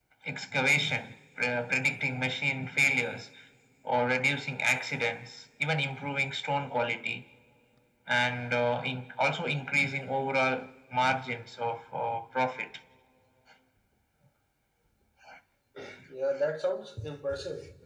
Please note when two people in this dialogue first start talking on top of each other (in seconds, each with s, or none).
none